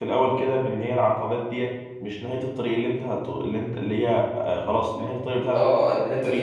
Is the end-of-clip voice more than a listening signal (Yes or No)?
Yes